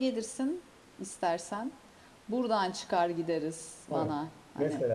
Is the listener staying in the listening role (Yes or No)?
No